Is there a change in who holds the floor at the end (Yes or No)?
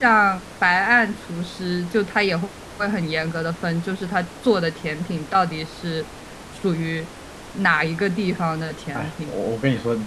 Yes